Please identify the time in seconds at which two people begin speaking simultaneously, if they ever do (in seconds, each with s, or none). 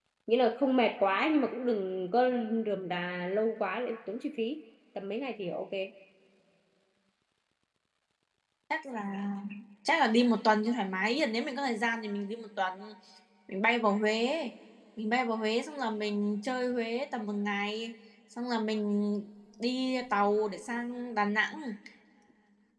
none